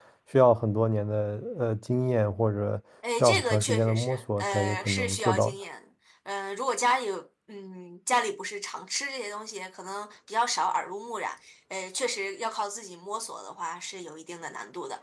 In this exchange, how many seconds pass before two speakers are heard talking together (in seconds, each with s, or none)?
3.2 s